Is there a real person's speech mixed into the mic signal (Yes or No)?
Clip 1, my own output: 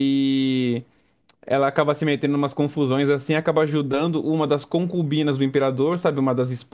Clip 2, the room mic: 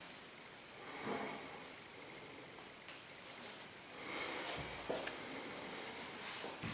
No